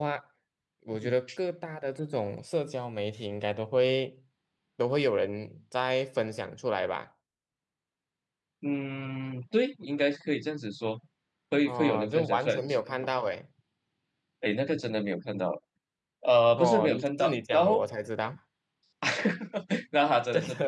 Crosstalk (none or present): present